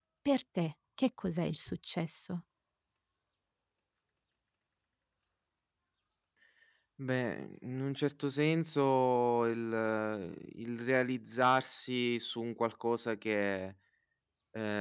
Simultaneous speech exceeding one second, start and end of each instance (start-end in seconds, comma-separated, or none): none